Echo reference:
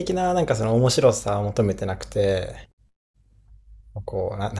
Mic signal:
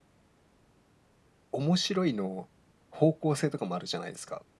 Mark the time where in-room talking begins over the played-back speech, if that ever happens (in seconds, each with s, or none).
1.5 s